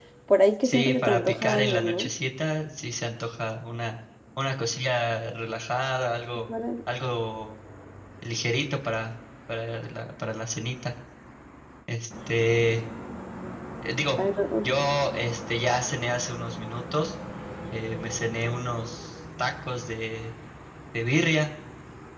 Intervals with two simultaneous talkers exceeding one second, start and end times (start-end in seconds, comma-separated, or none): 0.6-2.1